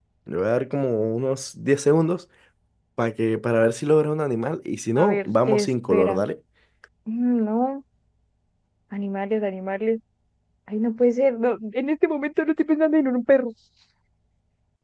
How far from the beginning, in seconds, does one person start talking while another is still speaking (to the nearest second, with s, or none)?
5 s